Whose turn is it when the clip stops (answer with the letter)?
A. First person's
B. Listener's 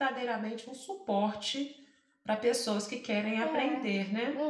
B